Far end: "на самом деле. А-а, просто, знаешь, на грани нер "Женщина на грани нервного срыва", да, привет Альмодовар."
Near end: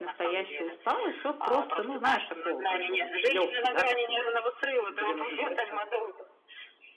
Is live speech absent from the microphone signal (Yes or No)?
No